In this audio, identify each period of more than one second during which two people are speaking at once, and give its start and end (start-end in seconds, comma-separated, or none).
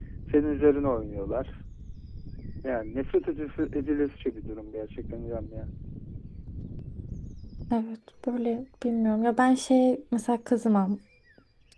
none